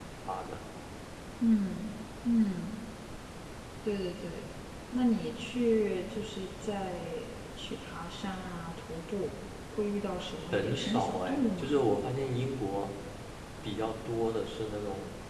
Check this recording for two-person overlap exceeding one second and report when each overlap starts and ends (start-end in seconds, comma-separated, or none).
10.5-11.8